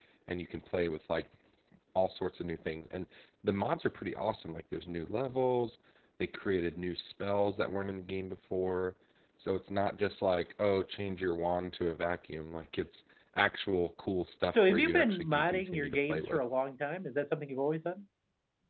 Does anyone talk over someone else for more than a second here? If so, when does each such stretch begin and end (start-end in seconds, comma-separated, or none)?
14.5-16.4